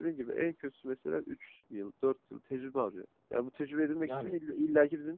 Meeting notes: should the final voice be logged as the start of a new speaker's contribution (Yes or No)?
No